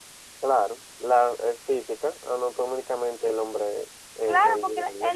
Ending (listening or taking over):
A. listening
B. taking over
B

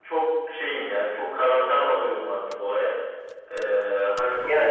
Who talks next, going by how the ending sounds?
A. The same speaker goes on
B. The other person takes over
A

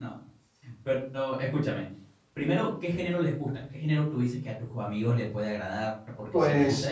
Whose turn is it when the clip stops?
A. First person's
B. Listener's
A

